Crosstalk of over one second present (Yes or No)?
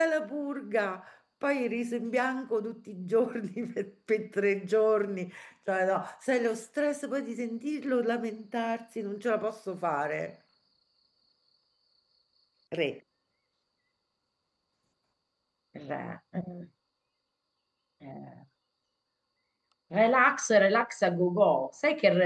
No